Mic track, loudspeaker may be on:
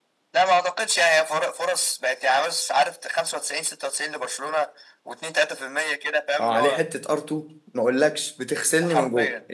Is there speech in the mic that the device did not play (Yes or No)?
Yes